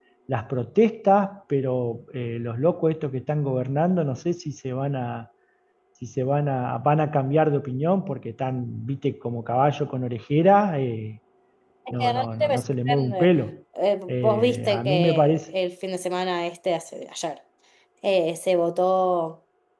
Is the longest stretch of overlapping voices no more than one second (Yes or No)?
No